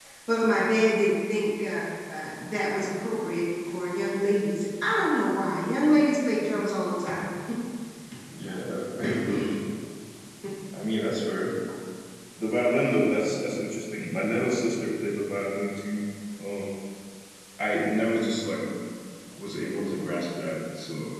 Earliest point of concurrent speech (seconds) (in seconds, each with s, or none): none